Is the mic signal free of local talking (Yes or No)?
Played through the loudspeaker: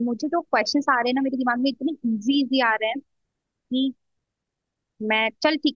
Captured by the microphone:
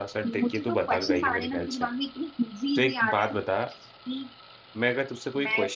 No